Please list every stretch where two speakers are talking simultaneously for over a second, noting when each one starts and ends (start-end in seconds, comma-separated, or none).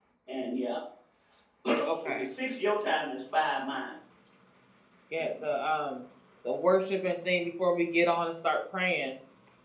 none